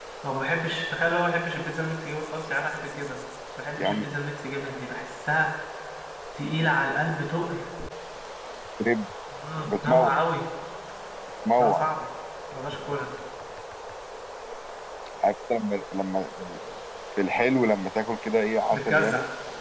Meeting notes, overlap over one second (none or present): none